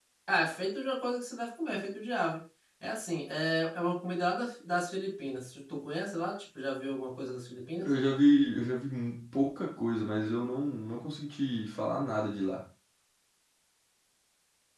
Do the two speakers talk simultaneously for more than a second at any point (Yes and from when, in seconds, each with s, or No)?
No